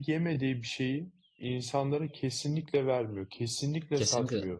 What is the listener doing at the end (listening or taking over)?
taking over